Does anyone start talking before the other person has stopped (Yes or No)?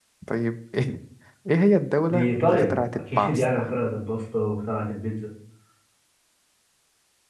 Yes